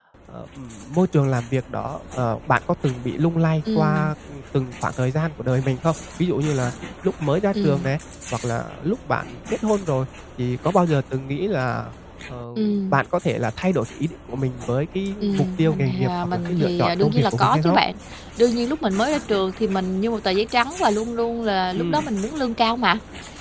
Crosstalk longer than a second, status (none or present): present